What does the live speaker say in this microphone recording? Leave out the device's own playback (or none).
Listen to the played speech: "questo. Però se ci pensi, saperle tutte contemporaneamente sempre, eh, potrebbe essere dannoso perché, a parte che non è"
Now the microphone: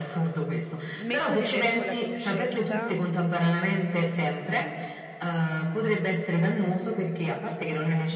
smetto di avere quella conoscenza,